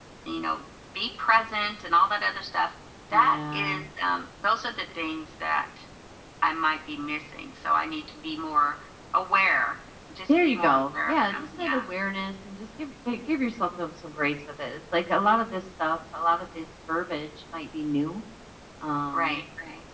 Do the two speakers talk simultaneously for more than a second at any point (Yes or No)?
Yes